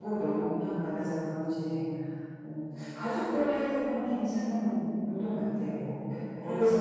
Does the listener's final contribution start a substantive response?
No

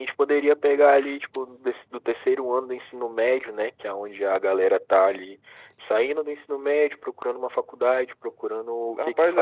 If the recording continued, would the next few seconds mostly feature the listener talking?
Yes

